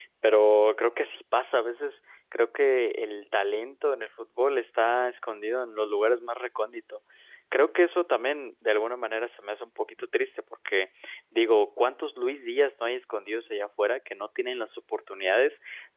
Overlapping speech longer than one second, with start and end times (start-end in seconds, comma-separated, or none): none